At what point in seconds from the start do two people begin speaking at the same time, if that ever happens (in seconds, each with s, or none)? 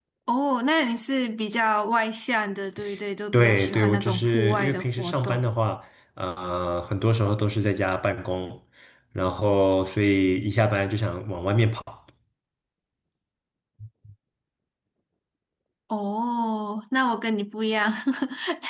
3.3 s